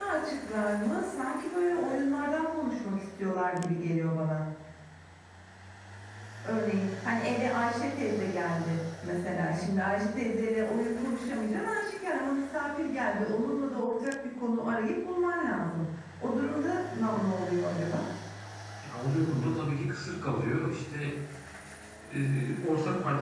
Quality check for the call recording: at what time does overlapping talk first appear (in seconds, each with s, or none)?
none